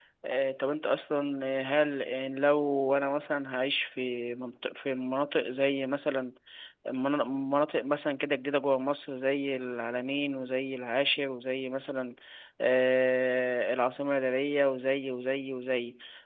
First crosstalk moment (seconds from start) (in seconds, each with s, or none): none